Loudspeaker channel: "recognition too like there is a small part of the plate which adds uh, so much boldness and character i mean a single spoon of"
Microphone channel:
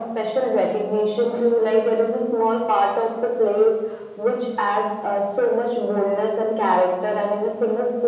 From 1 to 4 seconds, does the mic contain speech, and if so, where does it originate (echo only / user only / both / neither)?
echo only